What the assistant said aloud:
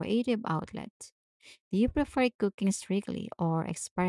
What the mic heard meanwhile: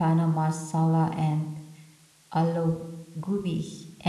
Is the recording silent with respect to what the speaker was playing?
Yes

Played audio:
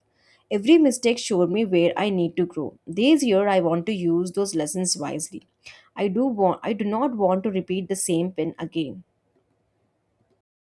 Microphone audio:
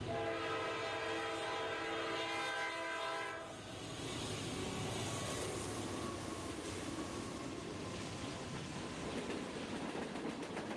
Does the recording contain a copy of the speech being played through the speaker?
No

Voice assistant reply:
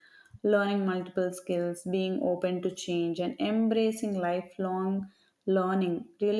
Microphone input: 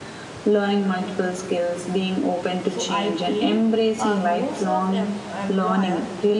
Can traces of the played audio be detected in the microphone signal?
Yes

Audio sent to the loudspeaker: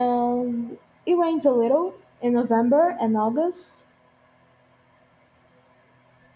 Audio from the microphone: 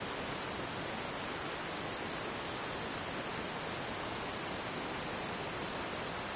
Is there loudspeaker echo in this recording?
No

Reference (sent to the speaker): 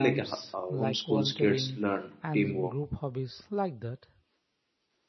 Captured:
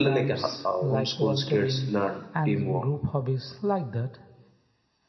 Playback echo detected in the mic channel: Yes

